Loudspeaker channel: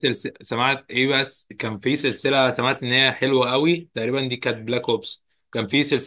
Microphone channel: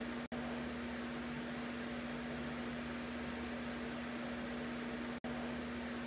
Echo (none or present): none